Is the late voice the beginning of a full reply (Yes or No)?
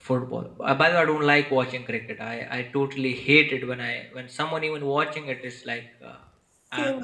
No